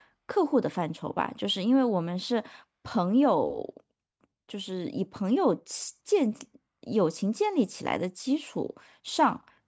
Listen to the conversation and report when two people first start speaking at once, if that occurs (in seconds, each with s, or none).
none